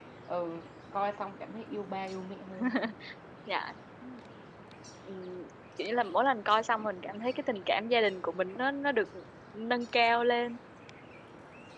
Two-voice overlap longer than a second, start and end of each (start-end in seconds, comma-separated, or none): none